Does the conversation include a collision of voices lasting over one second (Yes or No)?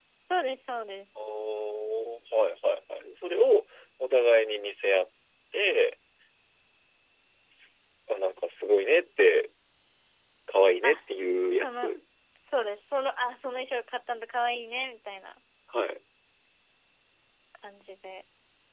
No